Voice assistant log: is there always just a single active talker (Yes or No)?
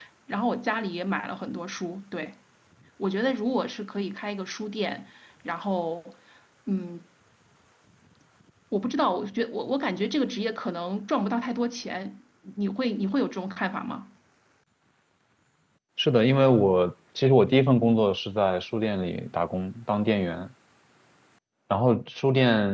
Yes